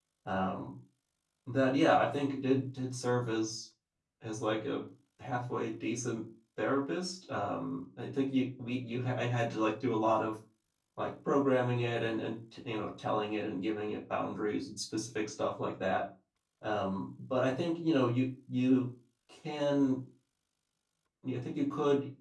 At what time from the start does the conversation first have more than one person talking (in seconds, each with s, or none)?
none